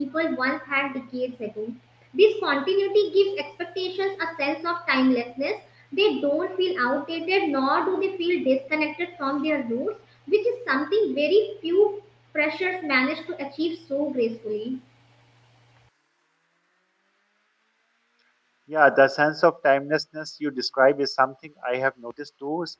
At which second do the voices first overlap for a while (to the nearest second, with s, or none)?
none